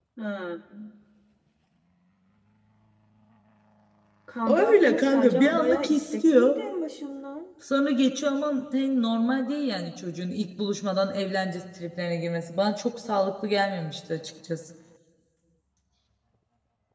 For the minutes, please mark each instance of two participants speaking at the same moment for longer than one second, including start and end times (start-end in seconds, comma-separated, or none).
4.5-6.5